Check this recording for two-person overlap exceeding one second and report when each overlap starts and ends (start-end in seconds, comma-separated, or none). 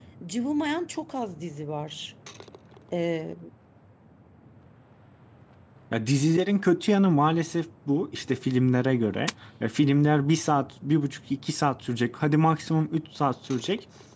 none